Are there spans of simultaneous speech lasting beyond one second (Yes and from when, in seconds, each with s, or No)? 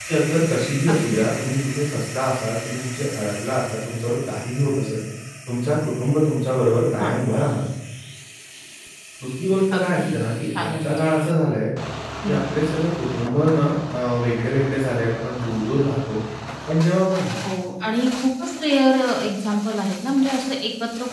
No